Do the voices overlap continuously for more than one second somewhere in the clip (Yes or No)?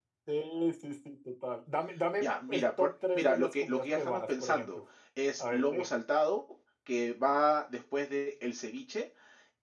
Yes